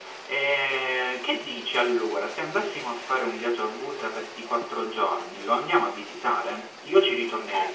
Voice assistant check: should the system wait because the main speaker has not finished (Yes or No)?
No